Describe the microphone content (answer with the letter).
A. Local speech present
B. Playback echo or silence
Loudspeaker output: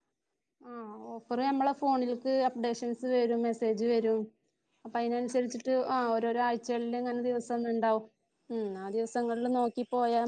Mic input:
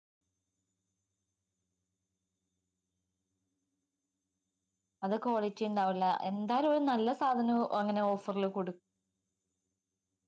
A